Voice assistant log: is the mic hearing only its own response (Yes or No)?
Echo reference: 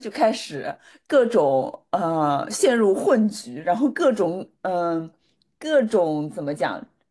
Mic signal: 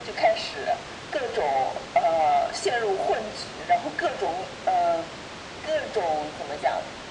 Yes